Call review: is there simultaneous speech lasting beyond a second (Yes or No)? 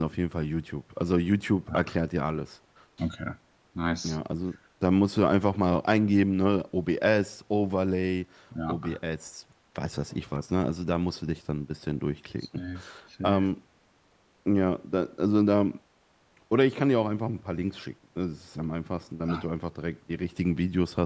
No